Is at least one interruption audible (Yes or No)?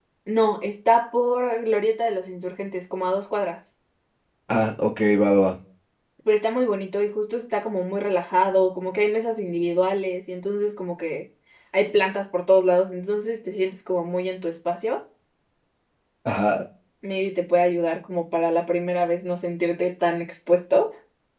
No